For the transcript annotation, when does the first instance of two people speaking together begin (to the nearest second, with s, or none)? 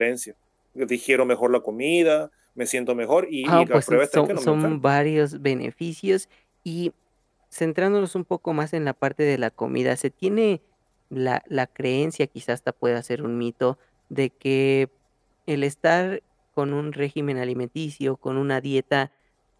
3 s